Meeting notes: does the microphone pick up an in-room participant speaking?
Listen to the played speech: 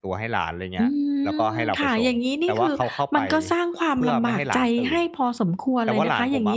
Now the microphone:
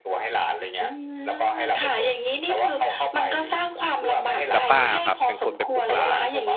Yes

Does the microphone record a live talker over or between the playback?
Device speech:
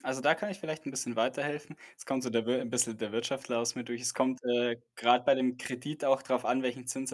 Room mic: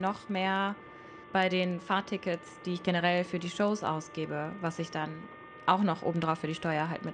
Yes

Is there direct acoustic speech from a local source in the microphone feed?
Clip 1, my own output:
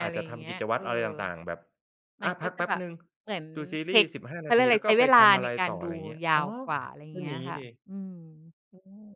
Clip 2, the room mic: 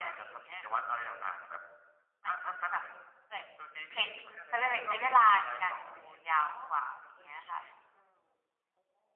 No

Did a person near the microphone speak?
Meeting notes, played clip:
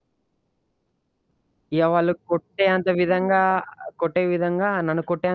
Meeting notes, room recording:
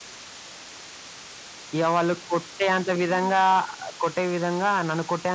No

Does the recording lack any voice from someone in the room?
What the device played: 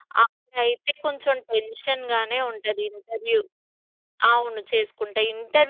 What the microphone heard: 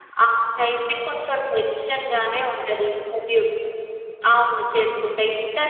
Yes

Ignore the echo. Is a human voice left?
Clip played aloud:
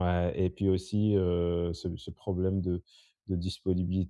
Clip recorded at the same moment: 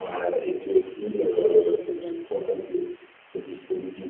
Yes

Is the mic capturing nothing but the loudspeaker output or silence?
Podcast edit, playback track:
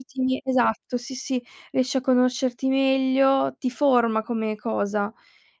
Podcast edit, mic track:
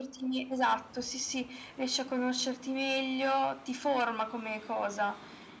Yes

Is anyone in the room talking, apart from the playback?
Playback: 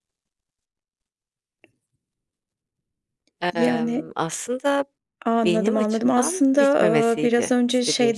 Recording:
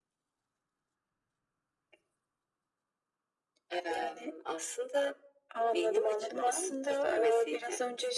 No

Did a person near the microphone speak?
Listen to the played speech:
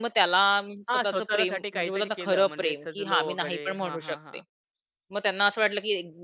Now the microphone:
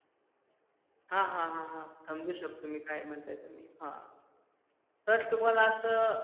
Yes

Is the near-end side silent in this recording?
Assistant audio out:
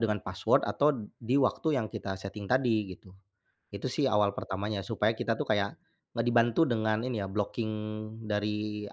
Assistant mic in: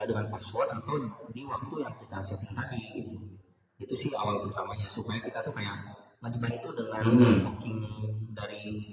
No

